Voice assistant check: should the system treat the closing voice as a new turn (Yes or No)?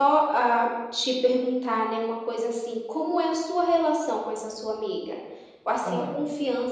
No